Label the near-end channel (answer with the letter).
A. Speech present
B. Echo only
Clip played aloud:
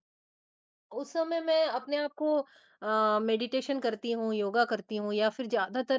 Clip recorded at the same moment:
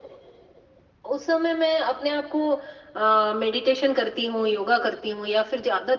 B